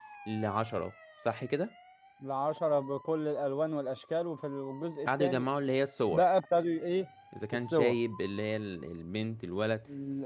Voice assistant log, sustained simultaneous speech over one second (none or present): none